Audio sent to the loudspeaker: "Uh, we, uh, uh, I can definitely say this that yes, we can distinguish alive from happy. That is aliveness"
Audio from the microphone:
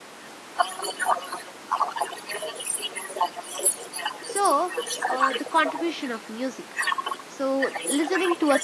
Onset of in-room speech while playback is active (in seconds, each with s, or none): 4.2 s